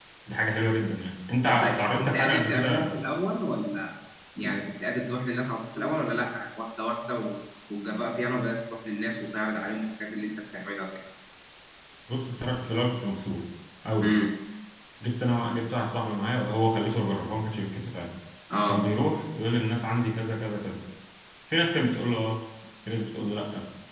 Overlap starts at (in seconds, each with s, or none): 1.4 s